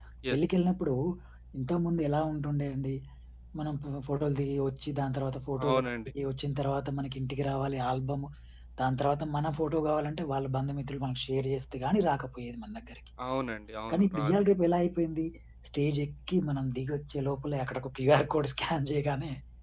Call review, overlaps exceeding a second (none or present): none